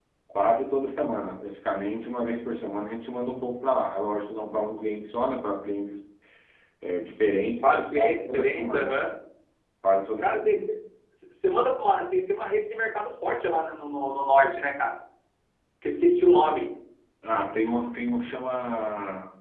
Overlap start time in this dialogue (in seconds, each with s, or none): 7.6 s